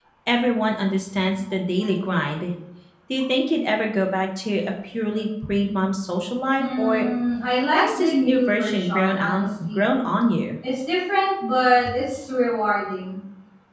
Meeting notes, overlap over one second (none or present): present